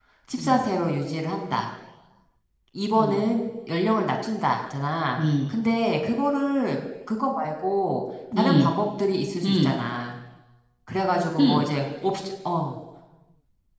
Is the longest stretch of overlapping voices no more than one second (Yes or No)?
Yes